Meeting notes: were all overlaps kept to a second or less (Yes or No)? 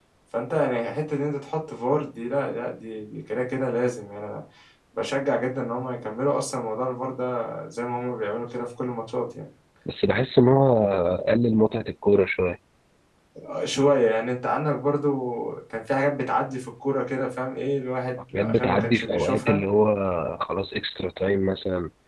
No